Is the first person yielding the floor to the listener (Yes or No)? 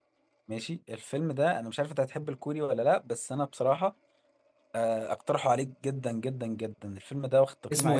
Yes